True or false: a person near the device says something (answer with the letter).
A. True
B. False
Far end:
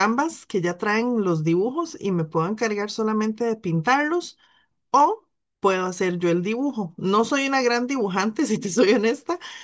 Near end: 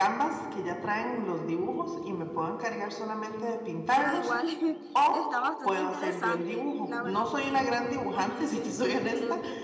A